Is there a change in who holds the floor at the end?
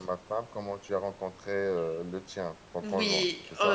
Yes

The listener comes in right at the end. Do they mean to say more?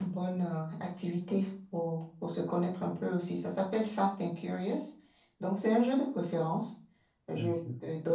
No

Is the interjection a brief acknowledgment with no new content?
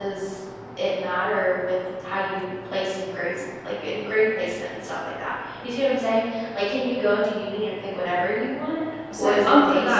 No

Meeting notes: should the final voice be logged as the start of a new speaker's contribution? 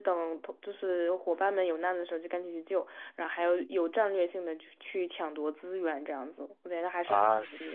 Yes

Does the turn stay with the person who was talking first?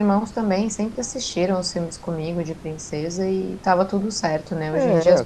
Yes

